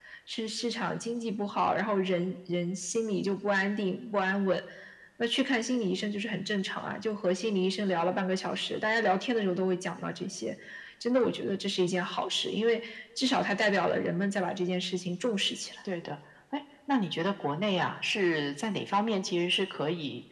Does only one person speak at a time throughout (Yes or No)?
Yes